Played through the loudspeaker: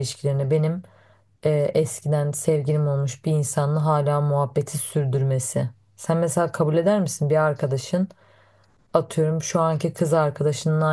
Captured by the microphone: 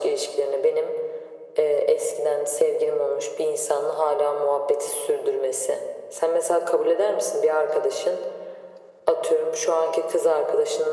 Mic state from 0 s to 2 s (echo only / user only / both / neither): echo only